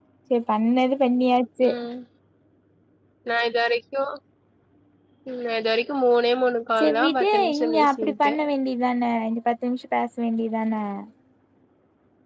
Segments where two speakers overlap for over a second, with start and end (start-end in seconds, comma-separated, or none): 6.8-8.3